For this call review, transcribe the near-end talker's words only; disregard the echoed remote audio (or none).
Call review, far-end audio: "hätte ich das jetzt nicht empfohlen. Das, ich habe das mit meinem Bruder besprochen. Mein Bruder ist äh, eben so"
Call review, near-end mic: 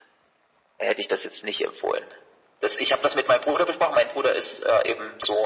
none